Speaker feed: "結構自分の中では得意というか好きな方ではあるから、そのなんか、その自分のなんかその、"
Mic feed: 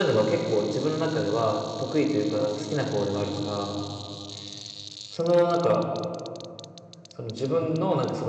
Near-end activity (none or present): none